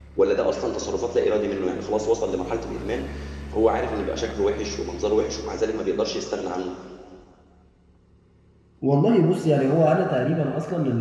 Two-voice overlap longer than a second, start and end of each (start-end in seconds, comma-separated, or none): none